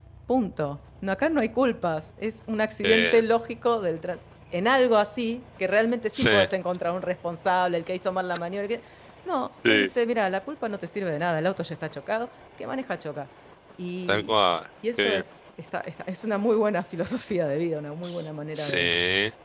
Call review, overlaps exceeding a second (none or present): none